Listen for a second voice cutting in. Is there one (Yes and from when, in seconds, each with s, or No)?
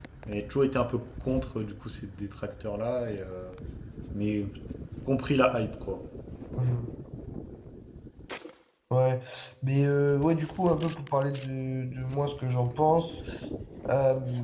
No